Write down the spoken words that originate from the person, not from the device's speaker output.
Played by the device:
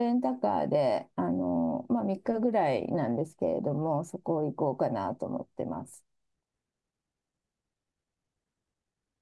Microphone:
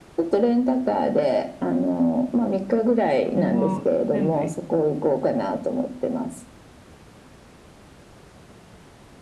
これは全部

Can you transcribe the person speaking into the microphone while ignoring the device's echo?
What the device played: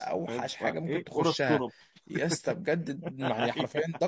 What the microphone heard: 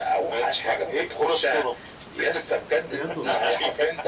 بجد والله

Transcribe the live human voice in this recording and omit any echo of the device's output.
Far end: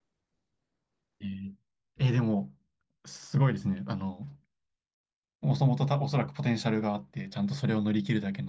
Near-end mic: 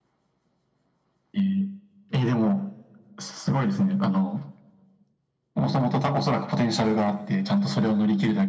none

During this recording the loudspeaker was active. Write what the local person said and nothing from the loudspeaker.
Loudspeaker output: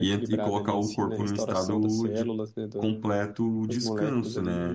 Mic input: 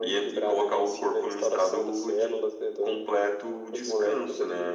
none

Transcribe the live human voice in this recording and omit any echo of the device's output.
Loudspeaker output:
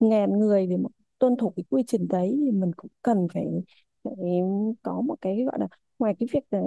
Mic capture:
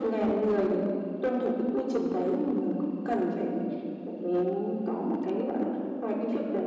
none

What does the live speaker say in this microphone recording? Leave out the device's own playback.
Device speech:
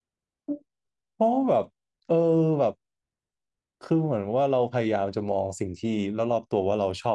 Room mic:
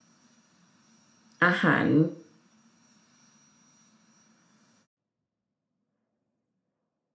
อาหาร

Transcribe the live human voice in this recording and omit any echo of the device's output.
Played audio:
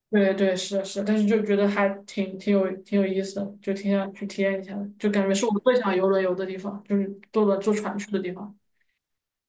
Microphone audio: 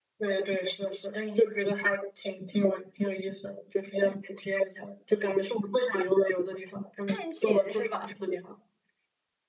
探险是吧？

